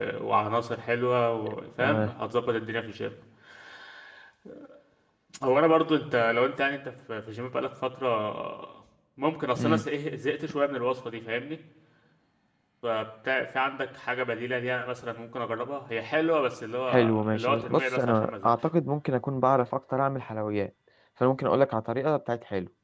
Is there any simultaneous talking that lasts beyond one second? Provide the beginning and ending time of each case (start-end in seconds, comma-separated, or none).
16.9-18.5